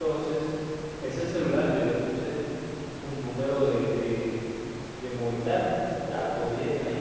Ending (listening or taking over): listening